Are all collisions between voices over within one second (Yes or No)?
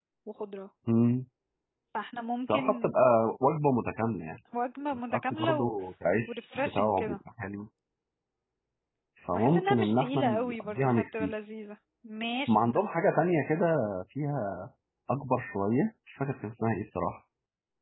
No